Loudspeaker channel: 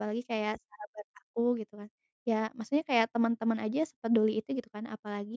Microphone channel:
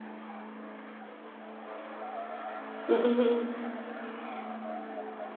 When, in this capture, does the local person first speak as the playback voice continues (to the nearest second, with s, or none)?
3 s